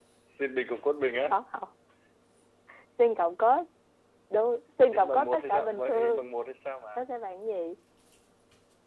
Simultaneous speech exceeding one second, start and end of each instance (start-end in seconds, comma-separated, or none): 4.9-6.2